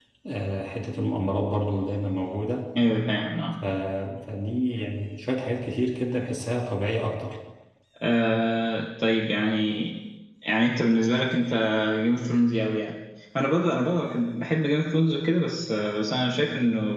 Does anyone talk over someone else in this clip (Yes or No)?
No